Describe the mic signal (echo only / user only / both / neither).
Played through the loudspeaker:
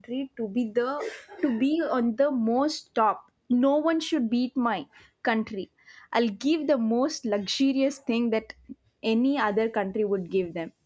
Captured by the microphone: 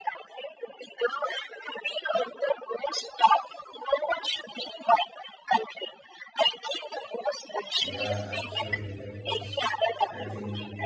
both